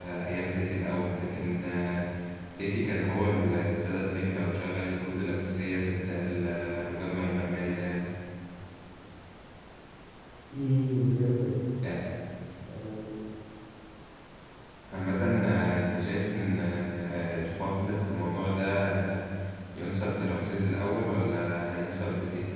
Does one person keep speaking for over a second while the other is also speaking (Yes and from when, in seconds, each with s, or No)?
No